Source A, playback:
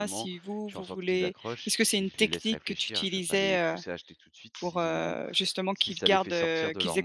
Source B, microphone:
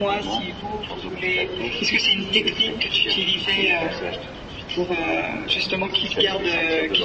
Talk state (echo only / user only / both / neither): echo only